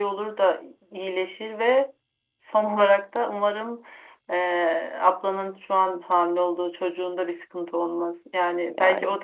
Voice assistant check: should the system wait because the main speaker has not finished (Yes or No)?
Yes